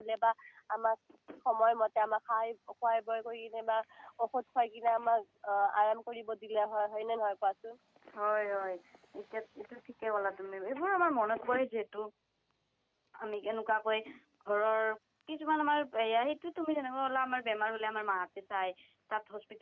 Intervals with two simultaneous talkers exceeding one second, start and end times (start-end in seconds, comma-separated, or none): none